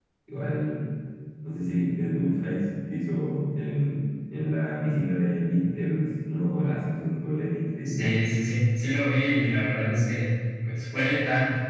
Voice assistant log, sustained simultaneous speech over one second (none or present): none